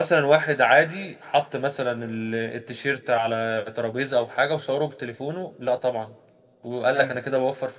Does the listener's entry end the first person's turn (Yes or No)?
No